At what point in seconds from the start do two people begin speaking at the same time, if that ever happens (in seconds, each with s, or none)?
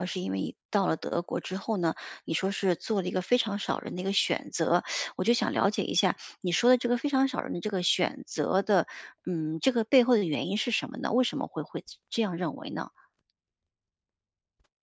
none